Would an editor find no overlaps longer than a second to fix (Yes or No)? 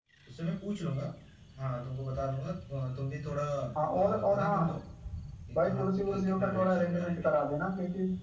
No